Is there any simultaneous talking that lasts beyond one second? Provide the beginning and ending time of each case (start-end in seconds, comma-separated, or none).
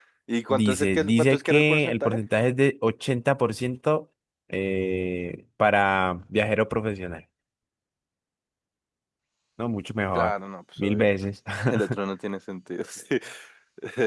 0.5-2.2